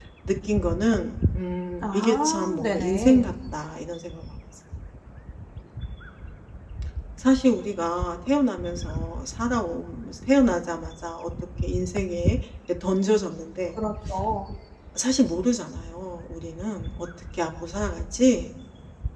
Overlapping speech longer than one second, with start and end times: 1.8-3.3

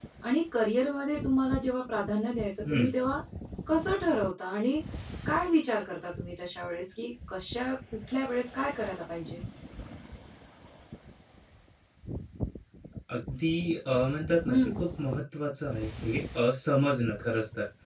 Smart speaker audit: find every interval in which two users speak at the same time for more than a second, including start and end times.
none

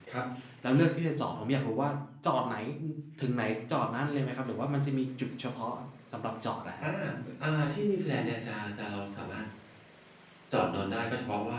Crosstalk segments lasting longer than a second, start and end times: none

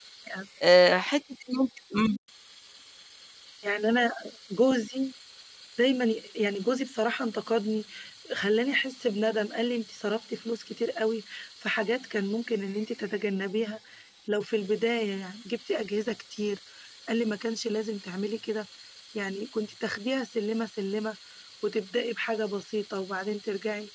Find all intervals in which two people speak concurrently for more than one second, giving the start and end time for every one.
none

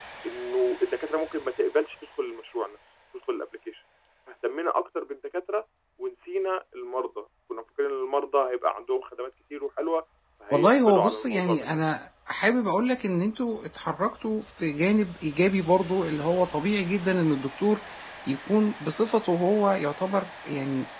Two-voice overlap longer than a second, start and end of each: 10.5-11.8

